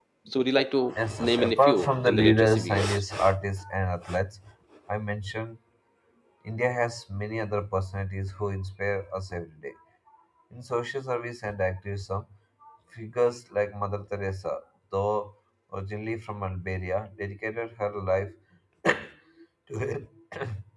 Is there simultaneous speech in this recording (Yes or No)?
Yes